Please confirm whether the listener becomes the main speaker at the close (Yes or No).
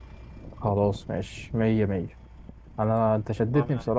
No